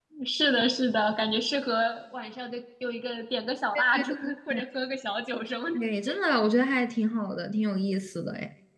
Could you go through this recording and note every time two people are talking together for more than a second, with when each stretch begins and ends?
none

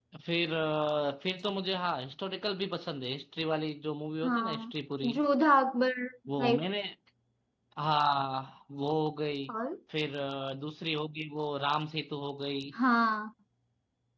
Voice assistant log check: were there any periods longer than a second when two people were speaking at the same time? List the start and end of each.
none

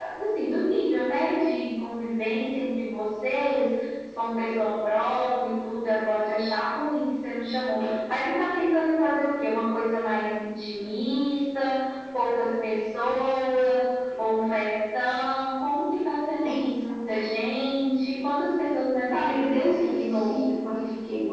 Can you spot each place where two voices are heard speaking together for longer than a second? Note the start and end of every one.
19.1-20.5

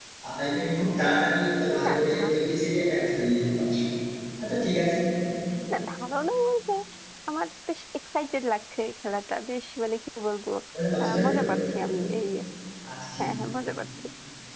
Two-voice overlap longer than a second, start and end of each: none

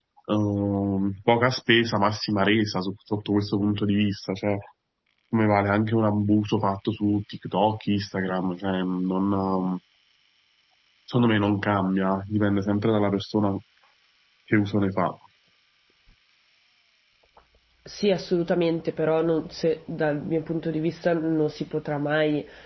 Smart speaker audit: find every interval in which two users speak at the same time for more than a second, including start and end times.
none

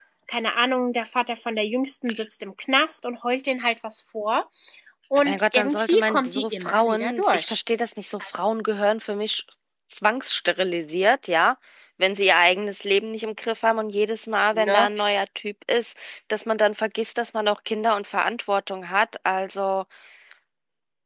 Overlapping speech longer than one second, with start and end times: 5.2-7.6

